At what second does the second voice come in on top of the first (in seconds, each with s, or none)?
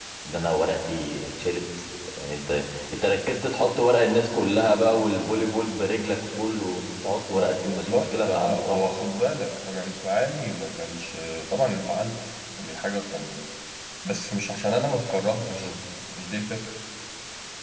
7.3 s